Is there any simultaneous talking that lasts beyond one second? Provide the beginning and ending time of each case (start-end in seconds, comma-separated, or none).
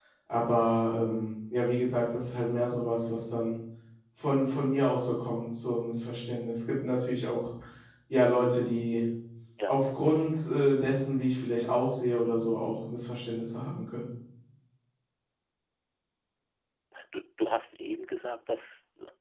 none